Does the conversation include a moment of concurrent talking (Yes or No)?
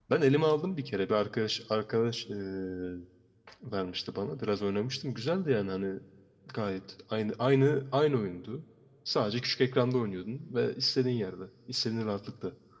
No